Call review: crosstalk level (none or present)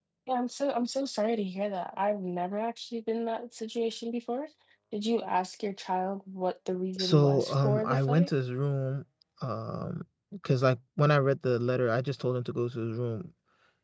present